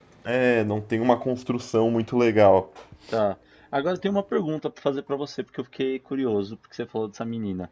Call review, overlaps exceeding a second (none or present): none